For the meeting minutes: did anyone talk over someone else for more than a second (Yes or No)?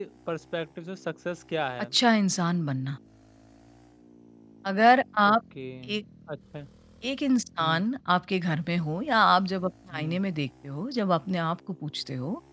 No